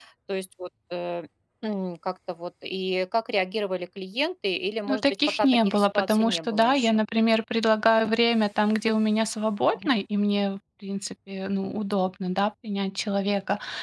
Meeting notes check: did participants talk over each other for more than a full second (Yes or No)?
Yes